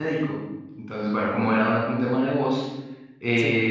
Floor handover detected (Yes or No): No